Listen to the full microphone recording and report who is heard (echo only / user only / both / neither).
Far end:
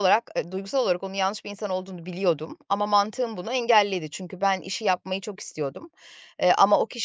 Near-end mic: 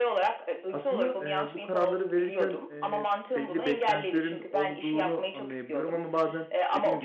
both